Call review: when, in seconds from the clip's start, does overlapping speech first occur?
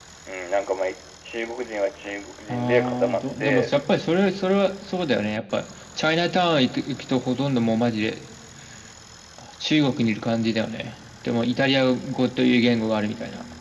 2.5 s

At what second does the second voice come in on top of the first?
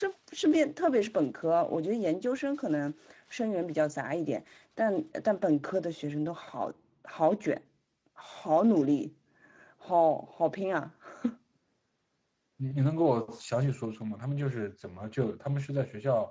none

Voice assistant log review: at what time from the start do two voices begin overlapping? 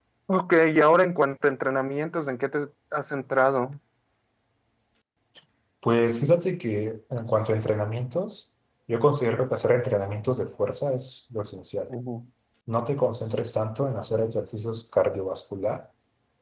none

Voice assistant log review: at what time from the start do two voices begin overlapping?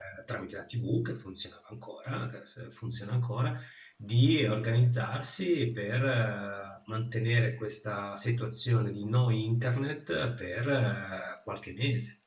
none

